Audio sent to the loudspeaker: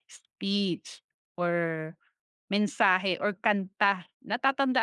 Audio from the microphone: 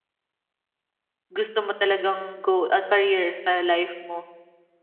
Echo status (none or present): none